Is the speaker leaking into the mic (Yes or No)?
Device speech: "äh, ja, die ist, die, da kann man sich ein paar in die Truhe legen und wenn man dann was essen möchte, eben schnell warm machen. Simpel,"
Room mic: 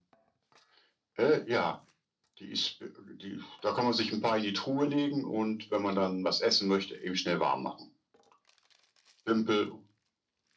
Yes